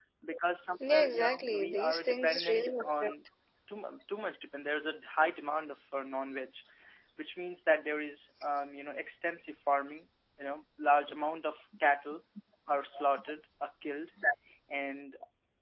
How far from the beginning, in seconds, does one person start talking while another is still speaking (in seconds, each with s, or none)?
0.9 s